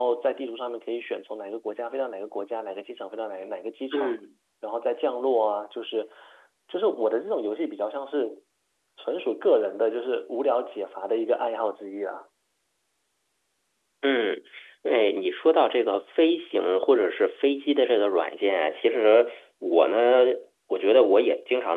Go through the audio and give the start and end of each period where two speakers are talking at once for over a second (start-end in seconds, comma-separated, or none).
none